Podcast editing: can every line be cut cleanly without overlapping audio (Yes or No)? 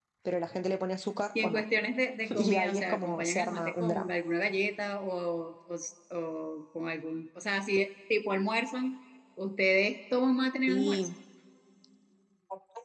No